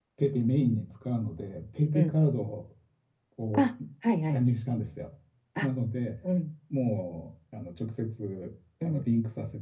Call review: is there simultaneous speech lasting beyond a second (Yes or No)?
No